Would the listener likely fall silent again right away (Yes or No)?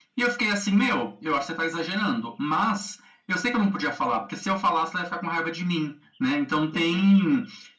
Yes